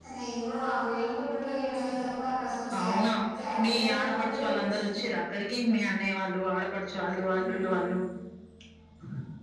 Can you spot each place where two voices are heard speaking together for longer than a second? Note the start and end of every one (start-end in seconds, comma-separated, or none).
3.6-4.9